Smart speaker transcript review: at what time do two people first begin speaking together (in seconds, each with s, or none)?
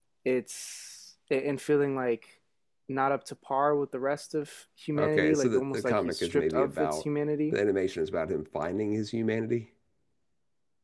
5.0 s